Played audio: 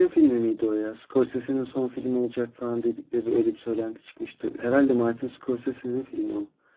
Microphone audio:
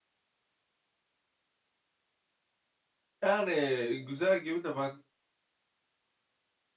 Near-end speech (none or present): present